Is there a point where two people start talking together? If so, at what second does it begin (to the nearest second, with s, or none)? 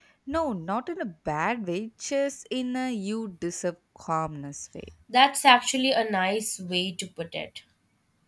none